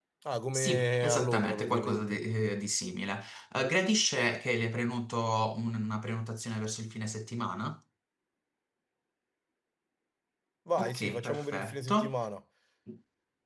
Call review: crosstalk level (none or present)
present